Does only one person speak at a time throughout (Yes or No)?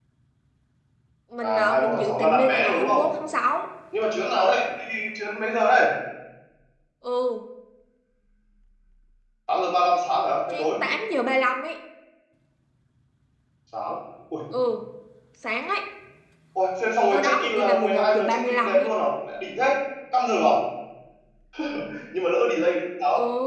No